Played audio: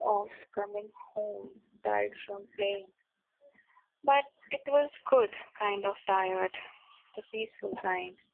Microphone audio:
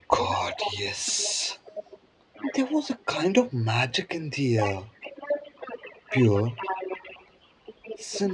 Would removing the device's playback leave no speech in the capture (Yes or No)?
No